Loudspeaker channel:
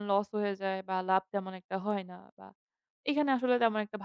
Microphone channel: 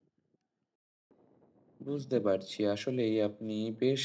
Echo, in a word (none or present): none